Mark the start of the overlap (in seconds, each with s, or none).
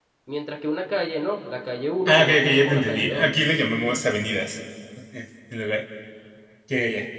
2.0 s